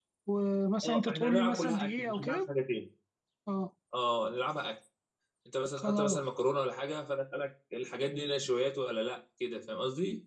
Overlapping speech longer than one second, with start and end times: 0.8-2.5

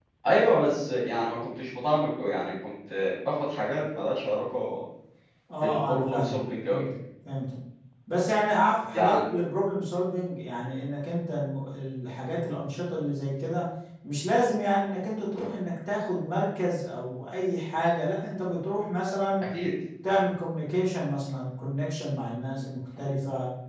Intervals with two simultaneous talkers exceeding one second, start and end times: 5.6-6.8

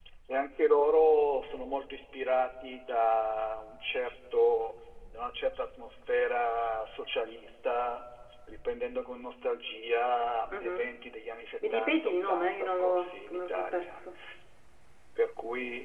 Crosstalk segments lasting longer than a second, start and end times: 11.7-14.0

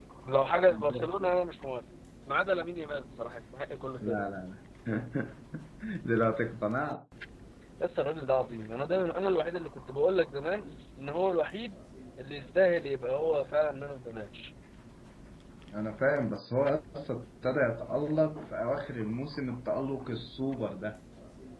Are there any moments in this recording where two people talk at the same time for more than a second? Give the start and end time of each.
none

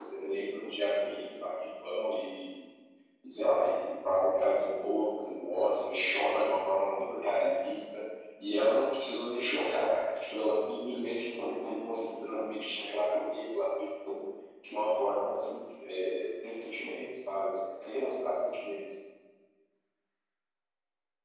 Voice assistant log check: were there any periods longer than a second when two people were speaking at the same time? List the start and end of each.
none

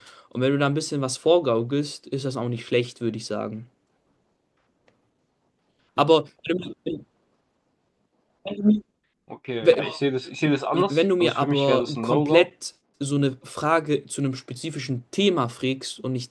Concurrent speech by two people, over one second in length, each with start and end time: 10.7-12.4

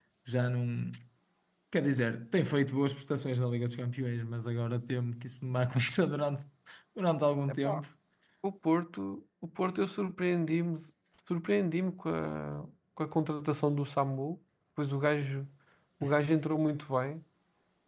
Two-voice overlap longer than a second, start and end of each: none

